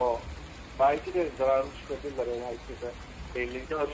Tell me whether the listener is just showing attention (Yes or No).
No